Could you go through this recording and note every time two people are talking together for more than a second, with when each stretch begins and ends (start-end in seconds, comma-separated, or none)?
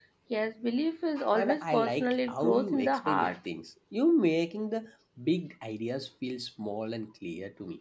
1.3-3.3